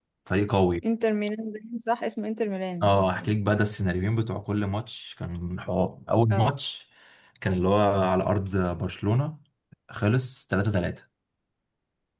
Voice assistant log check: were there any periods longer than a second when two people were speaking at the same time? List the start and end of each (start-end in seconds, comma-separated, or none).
none